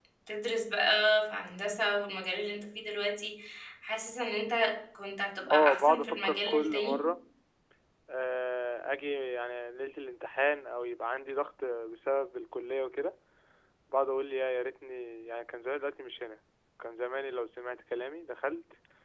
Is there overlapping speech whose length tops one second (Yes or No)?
Yes